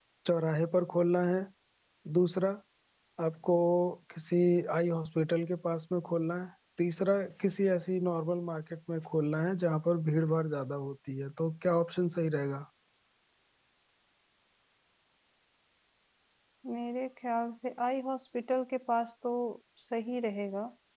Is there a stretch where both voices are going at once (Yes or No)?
No